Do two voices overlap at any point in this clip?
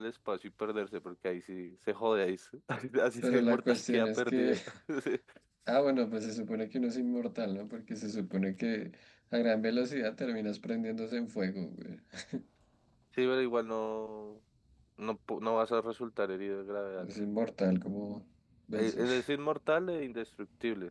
Yes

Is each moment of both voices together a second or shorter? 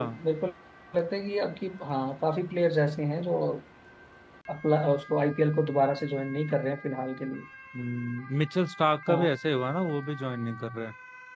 Yes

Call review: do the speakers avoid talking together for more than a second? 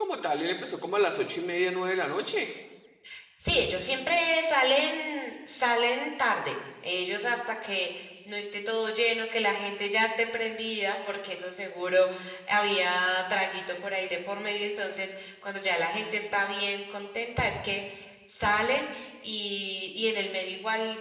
Yes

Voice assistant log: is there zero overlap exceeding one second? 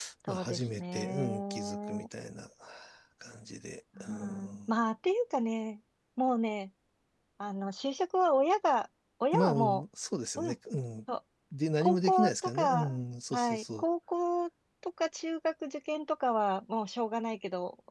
No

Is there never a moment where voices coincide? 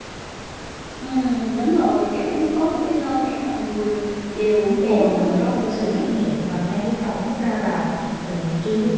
No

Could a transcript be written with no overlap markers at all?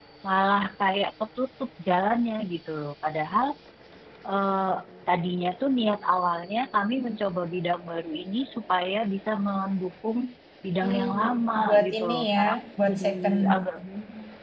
No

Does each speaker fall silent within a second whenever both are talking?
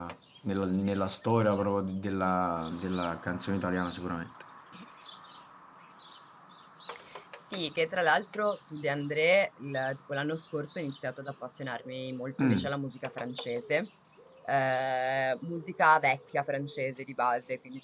Yes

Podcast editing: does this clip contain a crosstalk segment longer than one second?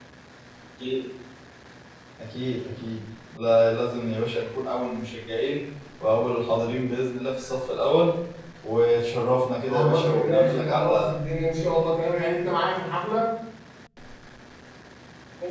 Yes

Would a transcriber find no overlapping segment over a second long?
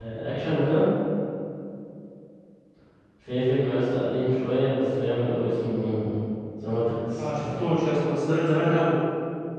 Yes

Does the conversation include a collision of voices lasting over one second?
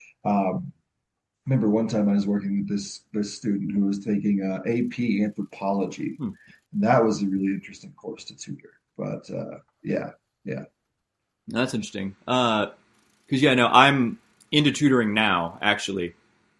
No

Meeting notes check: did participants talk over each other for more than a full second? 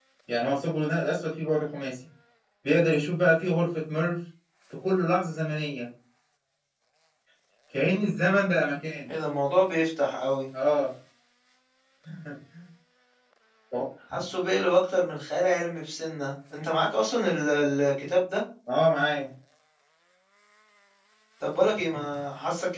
No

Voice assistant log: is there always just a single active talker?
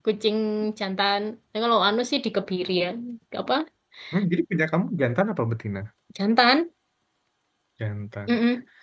Yes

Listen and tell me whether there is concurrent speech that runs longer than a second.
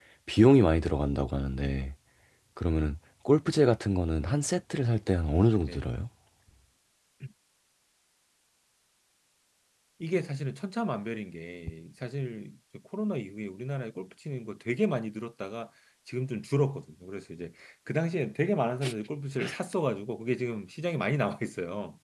No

